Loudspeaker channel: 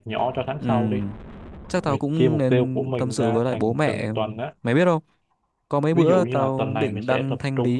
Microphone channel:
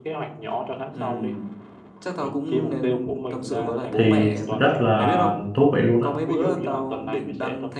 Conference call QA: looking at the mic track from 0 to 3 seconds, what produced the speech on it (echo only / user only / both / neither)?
echo only